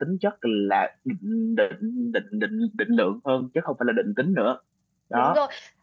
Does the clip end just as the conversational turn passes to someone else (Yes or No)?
Yes